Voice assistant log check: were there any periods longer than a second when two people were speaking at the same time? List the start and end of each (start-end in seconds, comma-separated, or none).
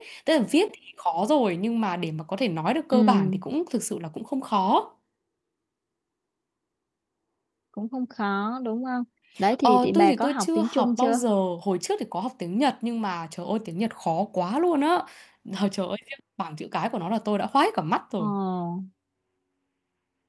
9.6-11.2